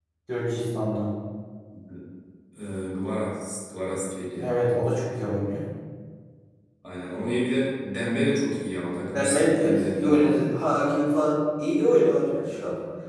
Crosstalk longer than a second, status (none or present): present